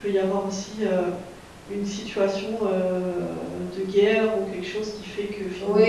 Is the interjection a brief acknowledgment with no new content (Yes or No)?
No